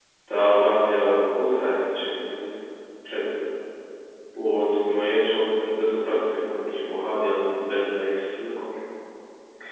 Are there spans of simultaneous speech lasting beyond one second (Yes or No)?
No